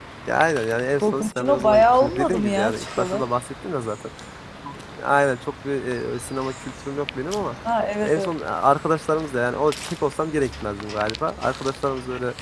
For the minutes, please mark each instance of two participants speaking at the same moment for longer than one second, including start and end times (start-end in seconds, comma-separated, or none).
1.0-3.3